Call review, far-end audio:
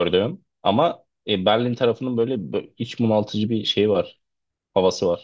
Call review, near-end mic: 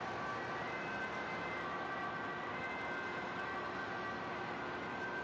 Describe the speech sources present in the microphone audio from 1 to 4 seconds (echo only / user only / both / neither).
neither